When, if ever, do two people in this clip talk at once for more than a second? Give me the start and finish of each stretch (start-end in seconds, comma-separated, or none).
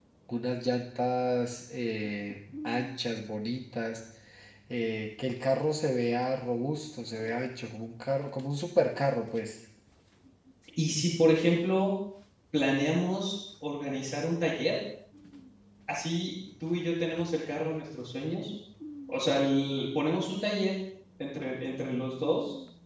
none